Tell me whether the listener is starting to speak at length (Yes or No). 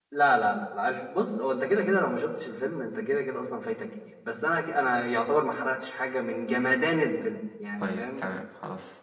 Yes